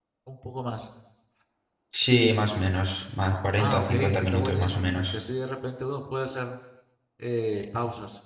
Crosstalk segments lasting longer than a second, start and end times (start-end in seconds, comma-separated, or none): 3.6-5.2